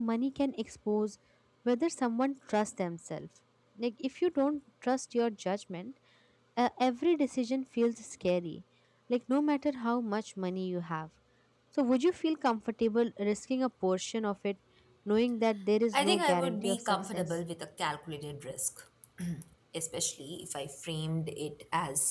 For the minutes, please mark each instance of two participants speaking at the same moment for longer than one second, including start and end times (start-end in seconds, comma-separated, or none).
15.9-17.4